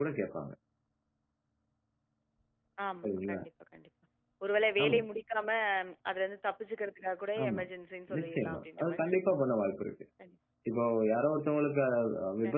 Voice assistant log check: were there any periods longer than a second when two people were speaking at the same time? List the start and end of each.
8.2-9.4

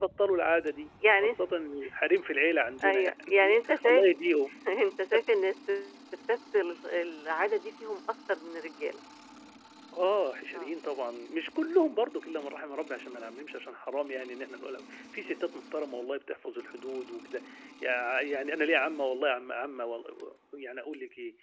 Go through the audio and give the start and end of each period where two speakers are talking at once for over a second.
2.8-4.0

